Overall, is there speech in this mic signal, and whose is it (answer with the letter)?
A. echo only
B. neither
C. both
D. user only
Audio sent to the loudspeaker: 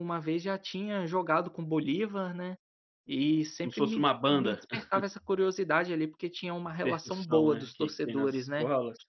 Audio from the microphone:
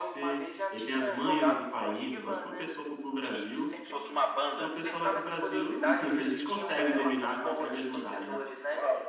C